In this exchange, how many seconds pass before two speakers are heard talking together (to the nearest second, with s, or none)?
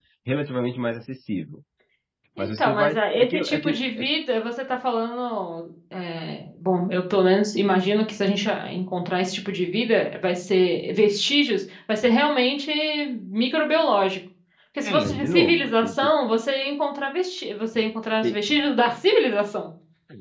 2 s